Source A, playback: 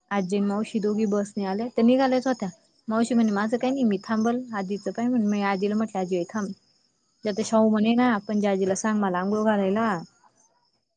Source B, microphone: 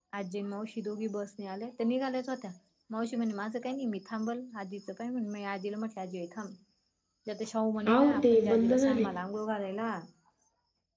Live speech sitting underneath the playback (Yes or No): No